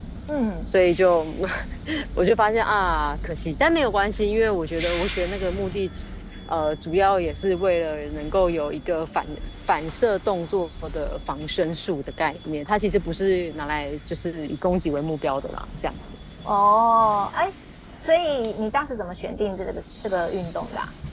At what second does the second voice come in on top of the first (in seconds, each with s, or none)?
none